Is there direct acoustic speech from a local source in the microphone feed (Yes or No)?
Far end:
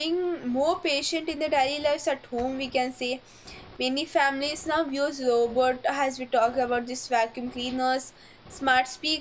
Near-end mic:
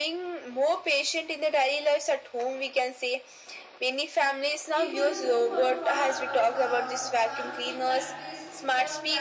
Yes